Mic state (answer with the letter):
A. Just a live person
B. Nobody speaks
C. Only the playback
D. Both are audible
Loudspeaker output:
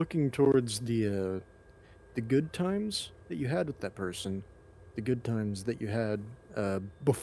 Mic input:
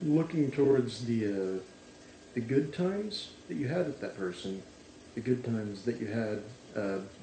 C